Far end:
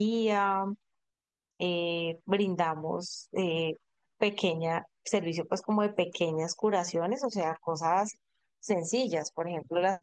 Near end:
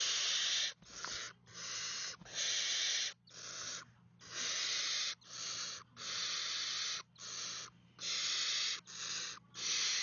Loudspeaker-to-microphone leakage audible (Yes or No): No